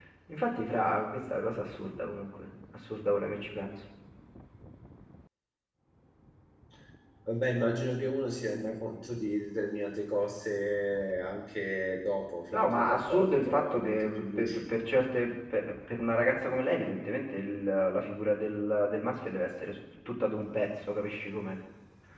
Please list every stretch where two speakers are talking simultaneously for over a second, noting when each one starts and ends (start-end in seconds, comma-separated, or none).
12.5-14.6